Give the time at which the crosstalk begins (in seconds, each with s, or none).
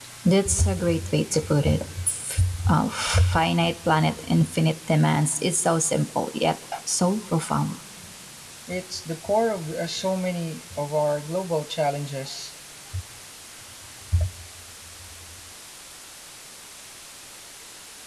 none